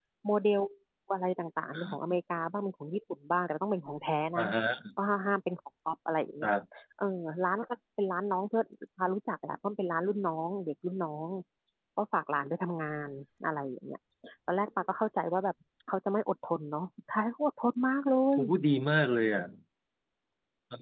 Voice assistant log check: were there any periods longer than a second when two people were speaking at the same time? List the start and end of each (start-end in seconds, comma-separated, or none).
none